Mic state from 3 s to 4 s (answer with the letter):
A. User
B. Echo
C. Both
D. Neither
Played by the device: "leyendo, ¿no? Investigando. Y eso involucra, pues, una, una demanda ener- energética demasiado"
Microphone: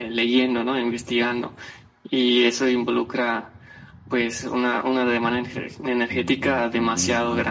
B